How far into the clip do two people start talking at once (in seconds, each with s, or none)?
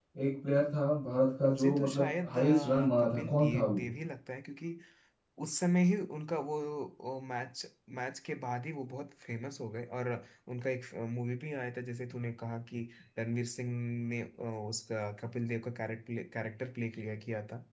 1.4 s